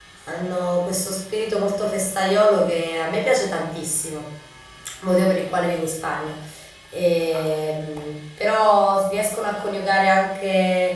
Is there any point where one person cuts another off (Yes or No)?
No